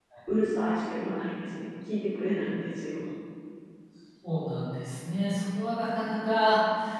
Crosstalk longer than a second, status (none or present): none